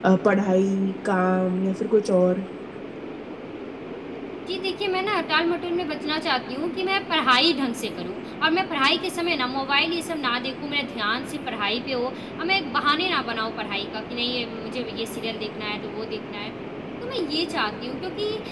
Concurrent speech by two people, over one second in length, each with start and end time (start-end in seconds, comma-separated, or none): none